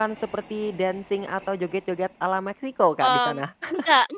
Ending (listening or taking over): taking over